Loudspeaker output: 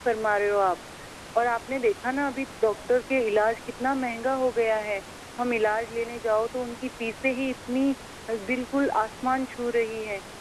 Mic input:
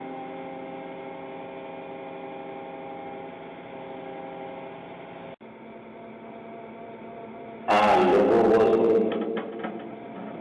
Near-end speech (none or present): present